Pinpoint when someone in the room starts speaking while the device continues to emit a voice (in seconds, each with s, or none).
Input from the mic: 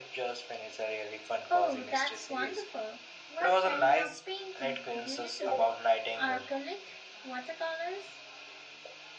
1.5 s